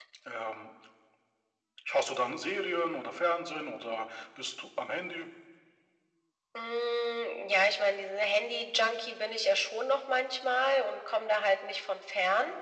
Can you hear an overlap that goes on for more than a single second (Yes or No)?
No